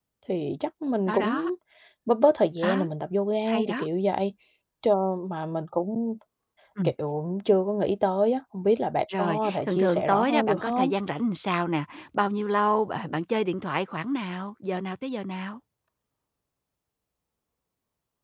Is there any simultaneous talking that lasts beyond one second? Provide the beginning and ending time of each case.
9.2-10.9

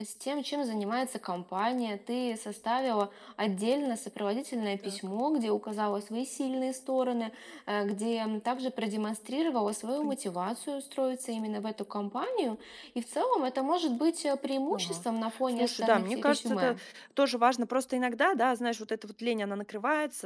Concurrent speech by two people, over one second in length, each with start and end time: 15.5-16.8

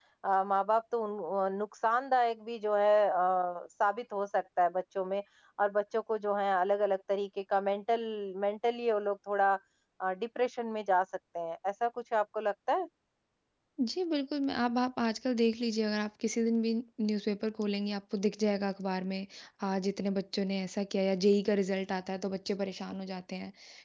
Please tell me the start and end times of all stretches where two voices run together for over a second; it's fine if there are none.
none

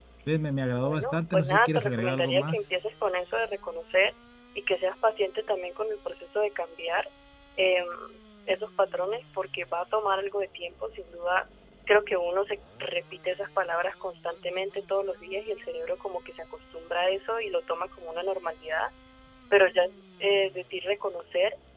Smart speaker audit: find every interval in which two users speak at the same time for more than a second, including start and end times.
0.8-2.6

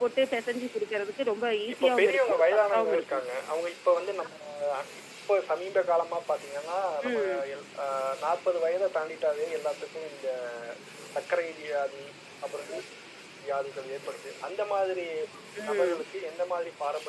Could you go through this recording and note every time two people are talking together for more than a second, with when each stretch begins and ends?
1.7-3.2

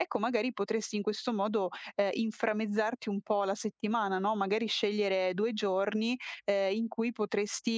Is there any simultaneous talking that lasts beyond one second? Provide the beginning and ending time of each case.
none

